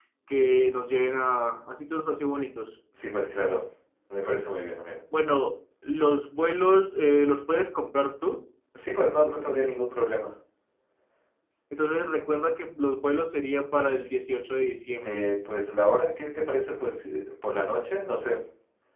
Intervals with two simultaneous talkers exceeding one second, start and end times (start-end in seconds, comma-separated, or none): none